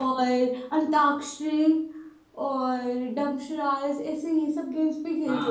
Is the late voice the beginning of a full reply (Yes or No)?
Yes